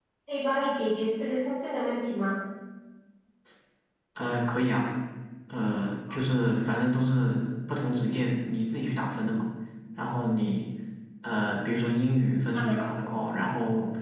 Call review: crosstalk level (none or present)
none